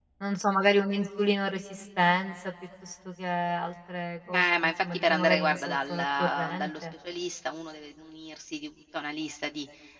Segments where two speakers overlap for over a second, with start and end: 4.3-6.8

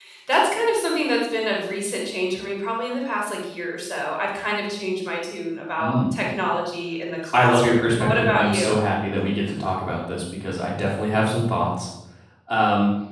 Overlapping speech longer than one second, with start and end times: 7.3-8.8

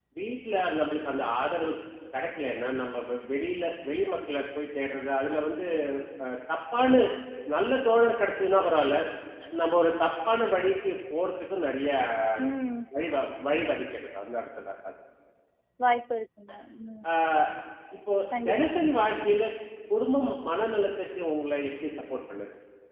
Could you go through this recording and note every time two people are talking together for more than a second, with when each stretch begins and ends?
none

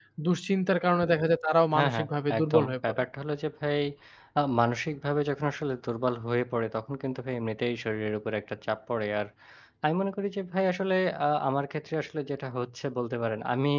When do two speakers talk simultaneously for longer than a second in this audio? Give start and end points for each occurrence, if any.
1.7-3.0

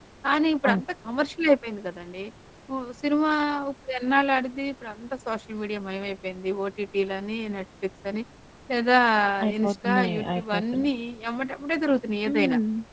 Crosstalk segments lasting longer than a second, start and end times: 9.6-10.9

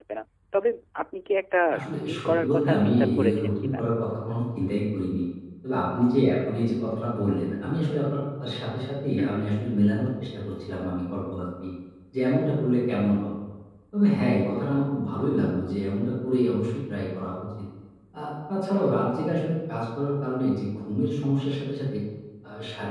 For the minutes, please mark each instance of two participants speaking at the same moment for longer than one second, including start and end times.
1.8-3.8

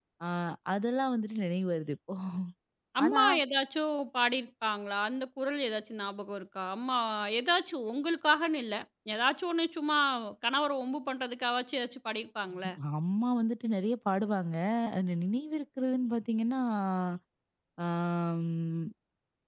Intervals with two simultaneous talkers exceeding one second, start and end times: none

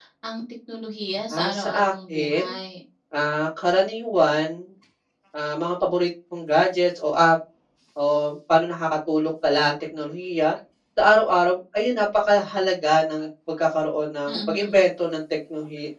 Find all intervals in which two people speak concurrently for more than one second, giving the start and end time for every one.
1.3-2.5

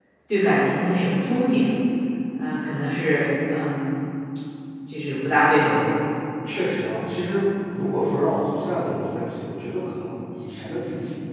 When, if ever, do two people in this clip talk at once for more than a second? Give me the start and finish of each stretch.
none

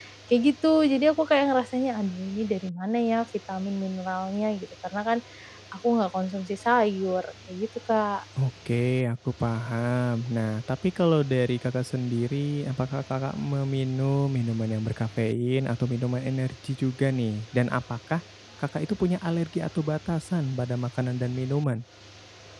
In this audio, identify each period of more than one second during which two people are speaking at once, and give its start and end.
none

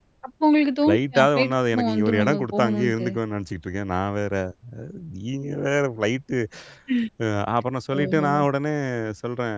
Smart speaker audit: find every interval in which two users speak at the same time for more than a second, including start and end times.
0.8-3.1

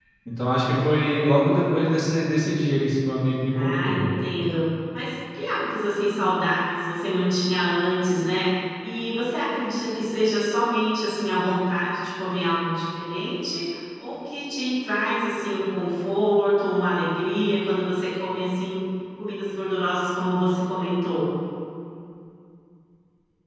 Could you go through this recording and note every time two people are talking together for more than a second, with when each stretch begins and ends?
none

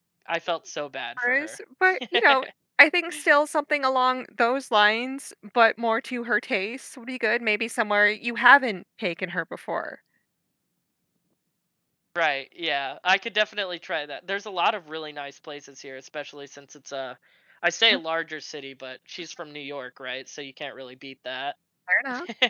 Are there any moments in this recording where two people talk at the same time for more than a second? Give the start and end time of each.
none

